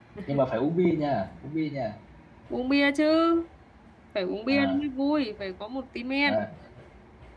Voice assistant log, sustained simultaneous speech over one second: none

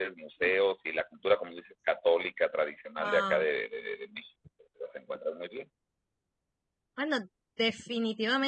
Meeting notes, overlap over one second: none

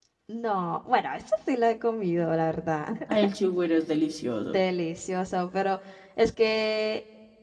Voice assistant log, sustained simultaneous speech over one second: none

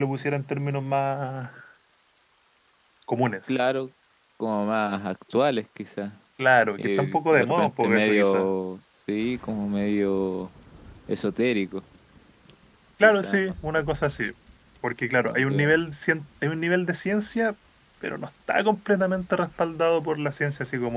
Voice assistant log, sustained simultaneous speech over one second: present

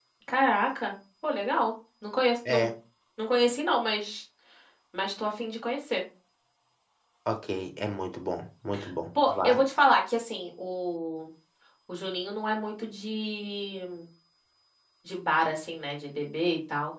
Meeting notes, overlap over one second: none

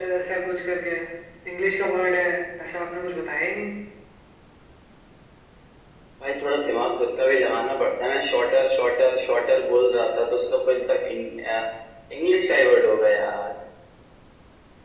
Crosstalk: none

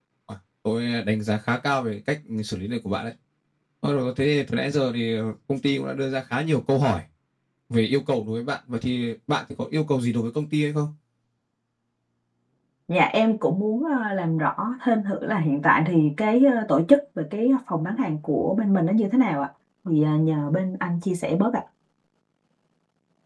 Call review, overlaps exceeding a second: none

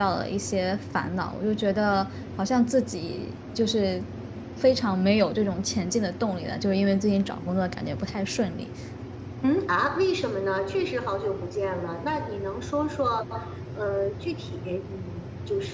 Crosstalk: none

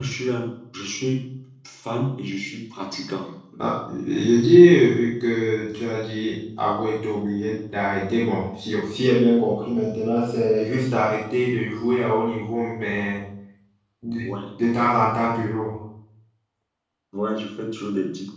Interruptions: none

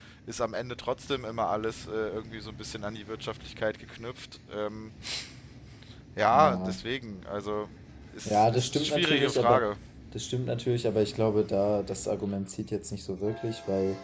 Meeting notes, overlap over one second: present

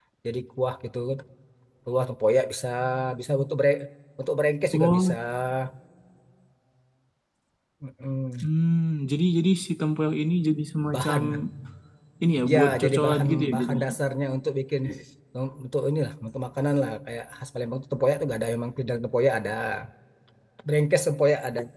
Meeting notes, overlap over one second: present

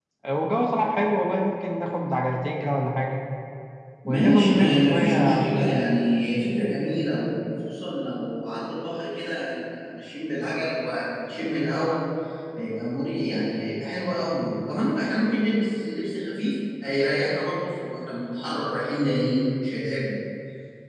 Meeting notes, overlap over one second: present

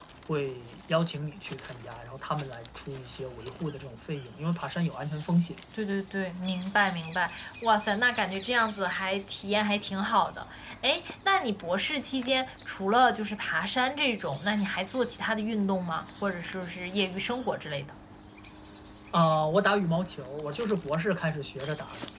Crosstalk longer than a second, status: none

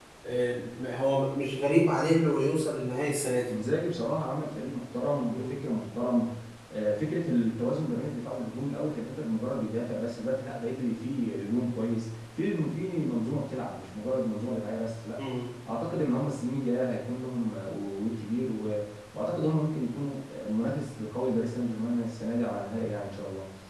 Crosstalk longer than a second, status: none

